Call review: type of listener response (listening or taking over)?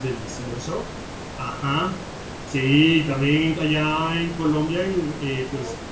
listening